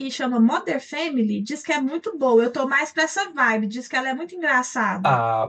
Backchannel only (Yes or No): No